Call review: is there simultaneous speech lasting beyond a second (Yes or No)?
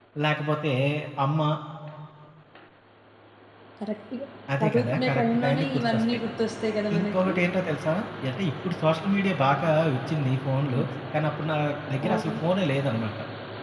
Yes